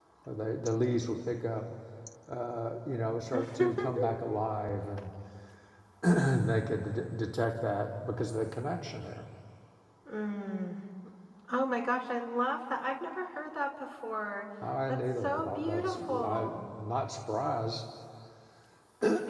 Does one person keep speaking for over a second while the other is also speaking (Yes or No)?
Yes